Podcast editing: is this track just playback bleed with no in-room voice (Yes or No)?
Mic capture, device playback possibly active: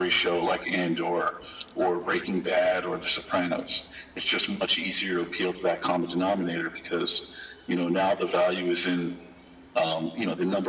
Yes